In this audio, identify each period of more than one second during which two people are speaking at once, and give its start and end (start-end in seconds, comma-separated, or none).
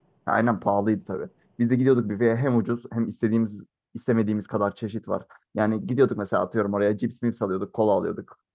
none